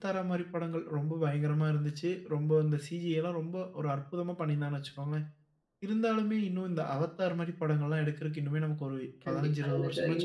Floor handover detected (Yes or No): Yes